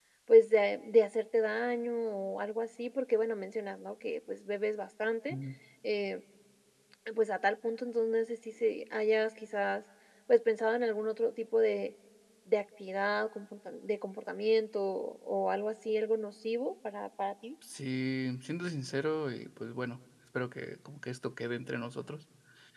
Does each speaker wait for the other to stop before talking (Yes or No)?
Yes